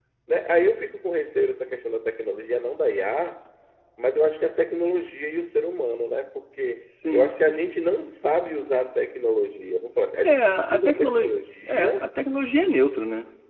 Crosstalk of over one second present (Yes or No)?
Yes